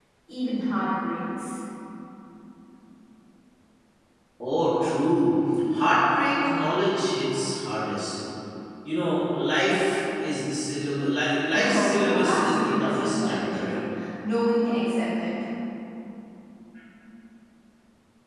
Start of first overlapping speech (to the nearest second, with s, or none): 12 s